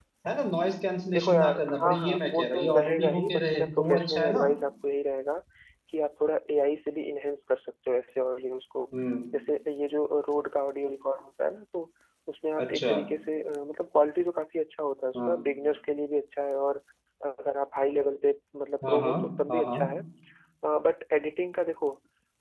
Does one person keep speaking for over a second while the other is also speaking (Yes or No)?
Yes